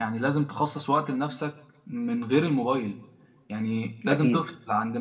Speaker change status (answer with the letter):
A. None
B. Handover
A